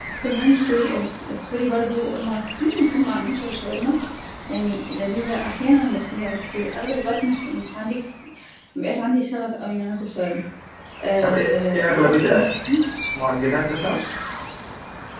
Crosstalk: present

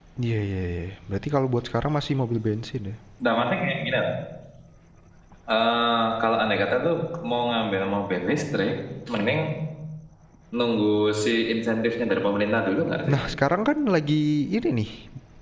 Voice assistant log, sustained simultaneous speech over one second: none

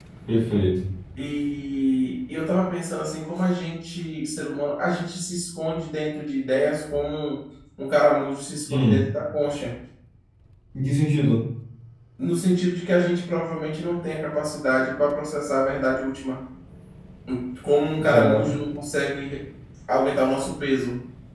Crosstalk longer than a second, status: none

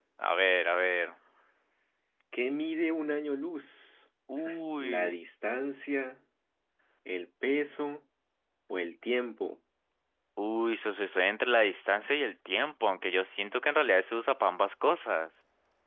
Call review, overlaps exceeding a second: none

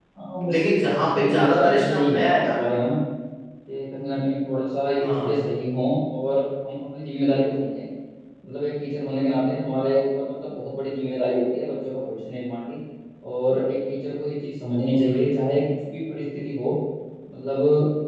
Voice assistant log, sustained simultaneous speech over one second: present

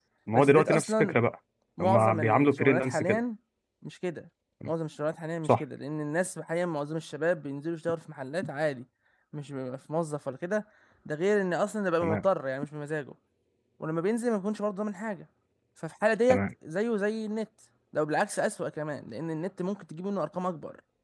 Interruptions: present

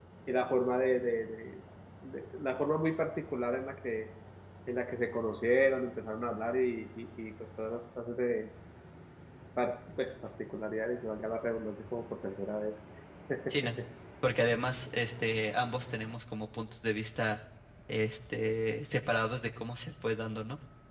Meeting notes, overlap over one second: none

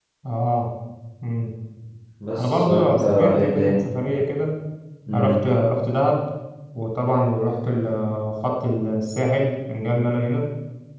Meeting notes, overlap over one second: present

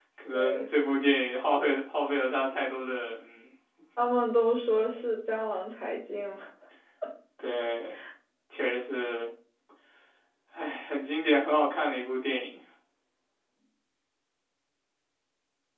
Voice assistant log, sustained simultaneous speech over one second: none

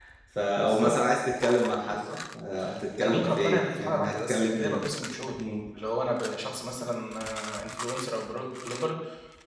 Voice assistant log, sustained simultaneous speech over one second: present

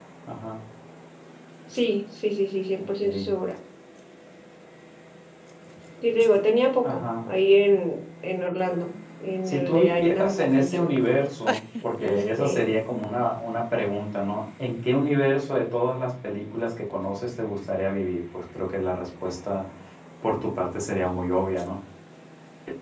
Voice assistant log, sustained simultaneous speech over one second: present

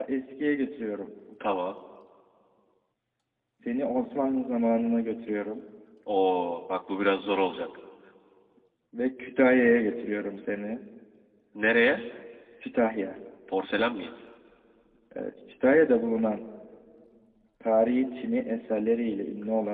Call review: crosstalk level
none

